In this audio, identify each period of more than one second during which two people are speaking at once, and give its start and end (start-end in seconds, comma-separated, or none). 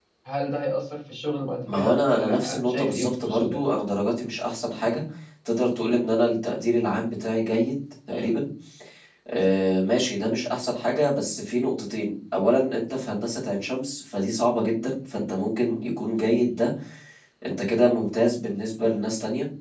1.7-3.6